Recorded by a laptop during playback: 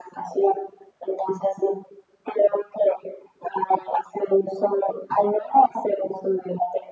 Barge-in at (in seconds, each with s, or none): none